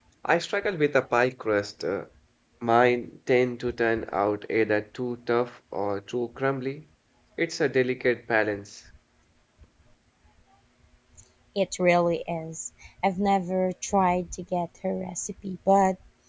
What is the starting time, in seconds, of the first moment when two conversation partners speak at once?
none

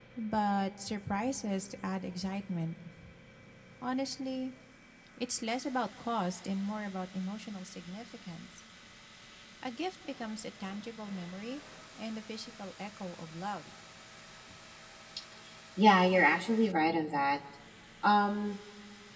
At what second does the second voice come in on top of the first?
none

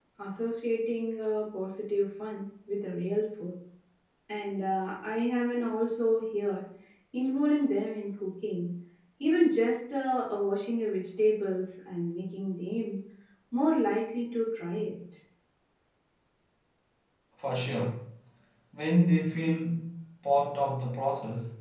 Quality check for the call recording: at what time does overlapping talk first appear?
none

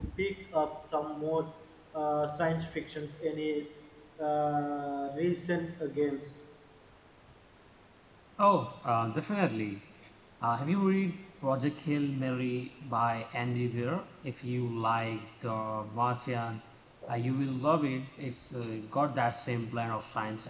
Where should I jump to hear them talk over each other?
none

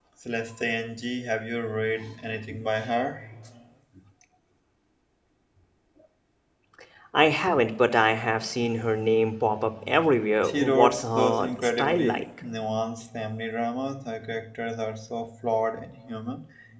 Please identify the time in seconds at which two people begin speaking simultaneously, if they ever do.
10.4 s

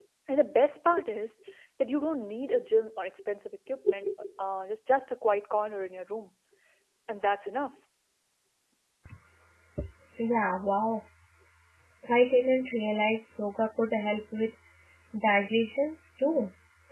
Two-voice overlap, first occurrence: none

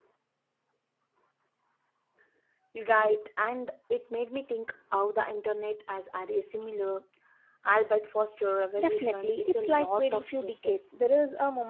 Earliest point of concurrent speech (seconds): 8.8 s

